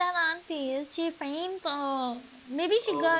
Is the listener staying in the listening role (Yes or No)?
No